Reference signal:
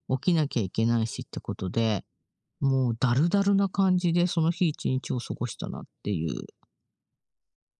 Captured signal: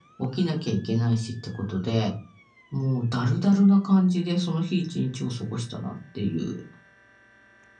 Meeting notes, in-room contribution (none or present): none